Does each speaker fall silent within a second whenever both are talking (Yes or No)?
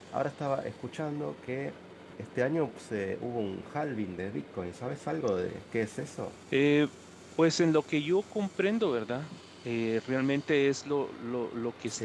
Yes